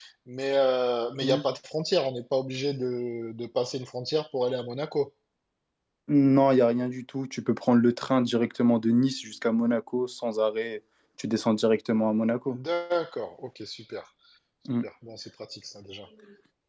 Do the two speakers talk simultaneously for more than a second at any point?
No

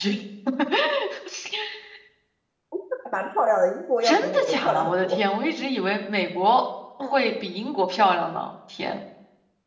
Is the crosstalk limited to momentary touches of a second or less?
No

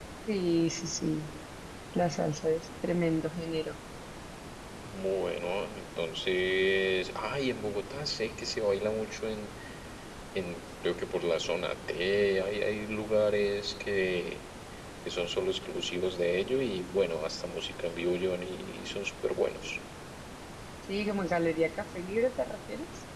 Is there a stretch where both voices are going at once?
No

